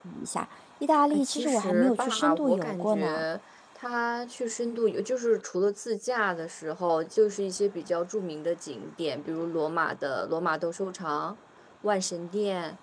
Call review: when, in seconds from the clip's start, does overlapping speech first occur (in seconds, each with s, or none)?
1.1 s